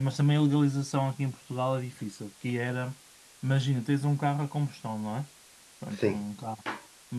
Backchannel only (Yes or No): Yes